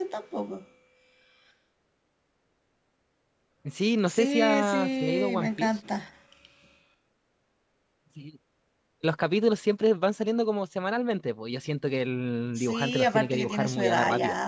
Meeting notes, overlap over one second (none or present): present